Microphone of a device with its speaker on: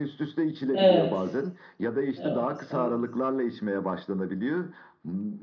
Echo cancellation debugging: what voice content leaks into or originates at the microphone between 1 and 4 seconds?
both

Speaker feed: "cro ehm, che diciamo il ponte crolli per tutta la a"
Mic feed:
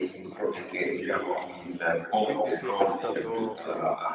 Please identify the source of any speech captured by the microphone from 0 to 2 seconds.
echo only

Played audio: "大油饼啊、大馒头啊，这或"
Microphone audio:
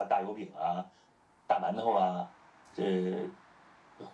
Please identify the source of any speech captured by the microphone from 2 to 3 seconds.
echo only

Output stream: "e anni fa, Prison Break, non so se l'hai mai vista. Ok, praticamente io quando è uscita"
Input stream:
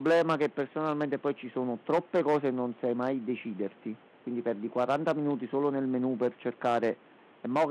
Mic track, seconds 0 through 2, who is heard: user only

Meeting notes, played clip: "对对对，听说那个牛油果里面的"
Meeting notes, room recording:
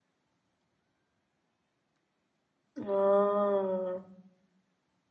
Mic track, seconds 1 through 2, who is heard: neither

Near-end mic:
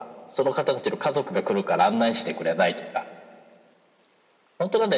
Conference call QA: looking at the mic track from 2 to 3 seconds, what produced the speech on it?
echo only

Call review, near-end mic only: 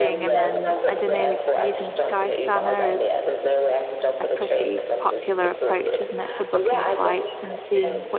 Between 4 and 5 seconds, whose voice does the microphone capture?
both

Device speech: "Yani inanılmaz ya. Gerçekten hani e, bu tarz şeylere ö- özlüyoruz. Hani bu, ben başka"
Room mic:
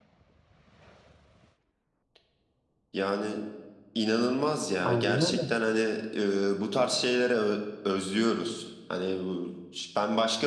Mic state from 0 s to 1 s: neither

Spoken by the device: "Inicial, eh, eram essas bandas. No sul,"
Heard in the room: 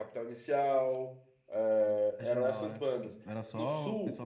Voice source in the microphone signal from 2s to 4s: both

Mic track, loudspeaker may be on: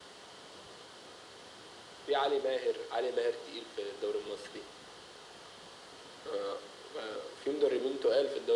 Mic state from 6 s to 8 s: echo only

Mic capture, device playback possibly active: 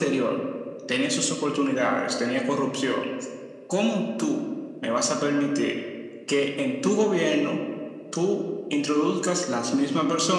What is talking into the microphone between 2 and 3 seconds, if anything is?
echo only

